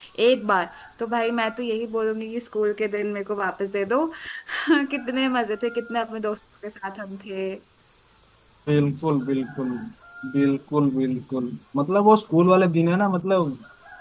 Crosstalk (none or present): none